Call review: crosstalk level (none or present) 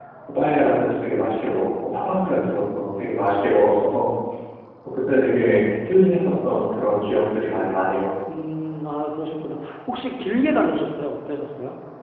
none